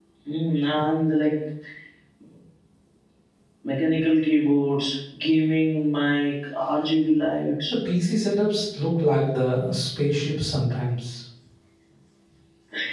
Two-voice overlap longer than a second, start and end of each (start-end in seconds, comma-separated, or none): none